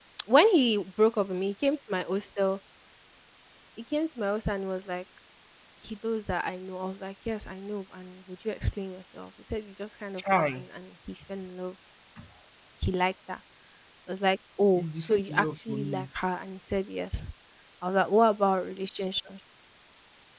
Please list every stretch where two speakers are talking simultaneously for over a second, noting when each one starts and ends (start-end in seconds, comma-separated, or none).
14.8-16.1